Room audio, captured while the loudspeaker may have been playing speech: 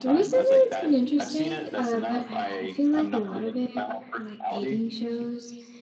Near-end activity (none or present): present